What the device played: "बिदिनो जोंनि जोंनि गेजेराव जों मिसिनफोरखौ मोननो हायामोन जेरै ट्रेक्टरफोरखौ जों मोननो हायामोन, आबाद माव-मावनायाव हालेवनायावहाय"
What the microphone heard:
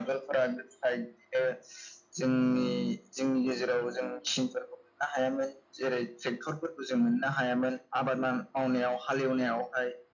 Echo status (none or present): present